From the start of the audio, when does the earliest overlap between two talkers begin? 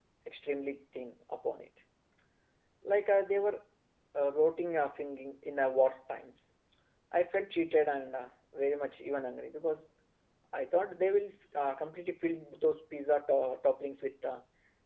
none

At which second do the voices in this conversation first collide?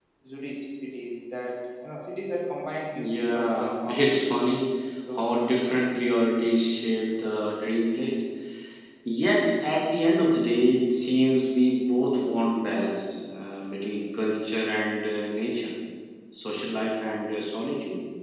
2.9 s

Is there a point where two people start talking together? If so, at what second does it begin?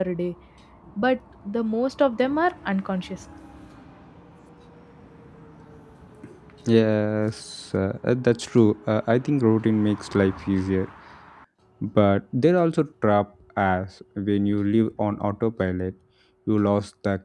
none

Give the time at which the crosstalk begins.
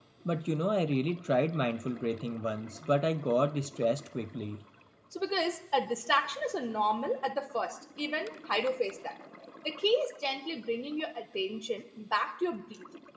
none

